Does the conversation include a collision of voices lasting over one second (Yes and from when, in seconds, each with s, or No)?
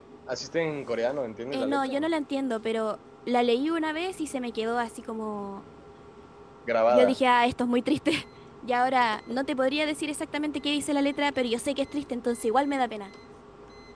No